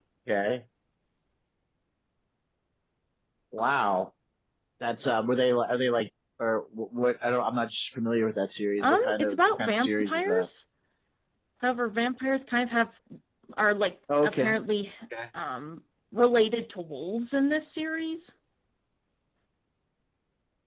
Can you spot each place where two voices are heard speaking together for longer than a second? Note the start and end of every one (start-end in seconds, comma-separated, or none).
8.8-10.5